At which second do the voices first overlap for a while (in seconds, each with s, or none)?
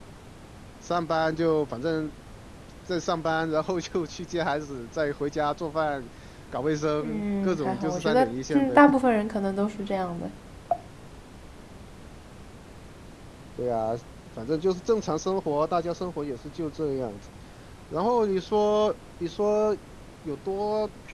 7.0 s